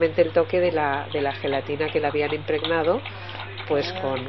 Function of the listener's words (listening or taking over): listening